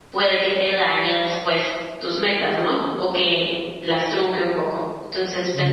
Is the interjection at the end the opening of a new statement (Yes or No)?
No